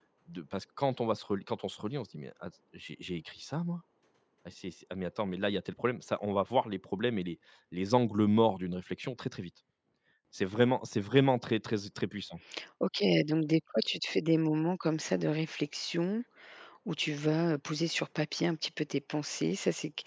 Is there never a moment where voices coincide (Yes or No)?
Yes